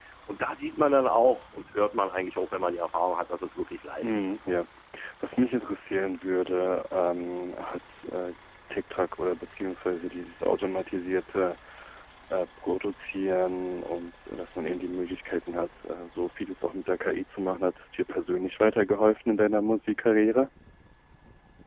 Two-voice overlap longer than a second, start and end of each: none

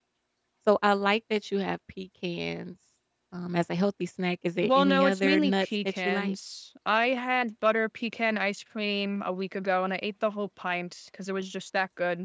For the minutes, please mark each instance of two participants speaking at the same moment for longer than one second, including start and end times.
4.6-6.4

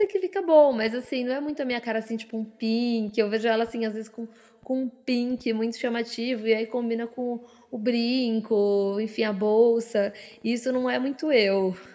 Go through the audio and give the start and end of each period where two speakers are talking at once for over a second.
none

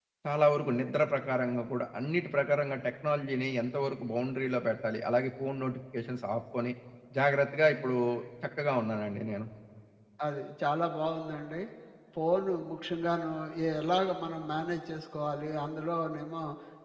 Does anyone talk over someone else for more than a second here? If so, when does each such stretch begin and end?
none

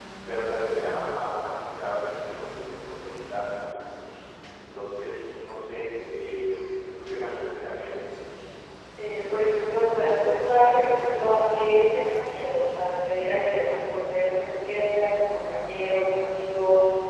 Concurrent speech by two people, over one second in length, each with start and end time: none

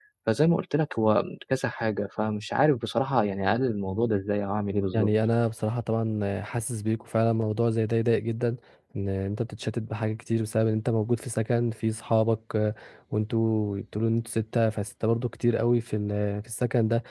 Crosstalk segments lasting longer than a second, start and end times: none

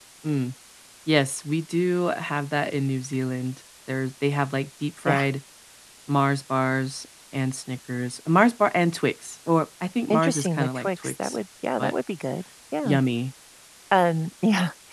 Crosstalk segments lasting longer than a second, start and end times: 10.1-11.4

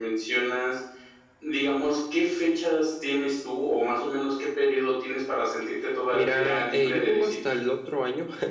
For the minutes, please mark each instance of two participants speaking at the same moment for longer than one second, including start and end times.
6.1-7.5

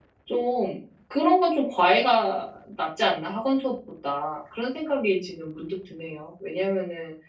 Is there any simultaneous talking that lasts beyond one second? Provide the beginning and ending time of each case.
none

